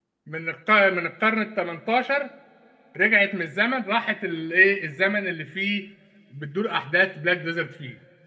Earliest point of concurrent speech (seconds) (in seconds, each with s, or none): none